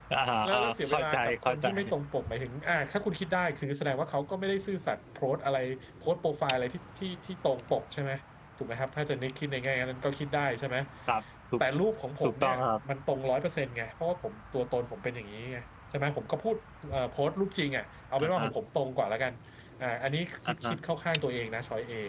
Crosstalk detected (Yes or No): Yes